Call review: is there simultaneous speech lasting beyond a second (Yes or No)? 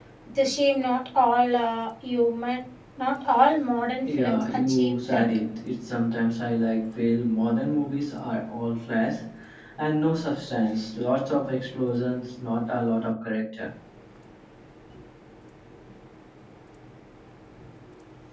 Yes